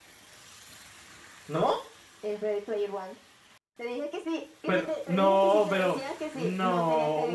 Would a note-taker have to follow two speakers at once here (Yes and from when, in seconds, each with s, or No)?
Yes, from 4.7 s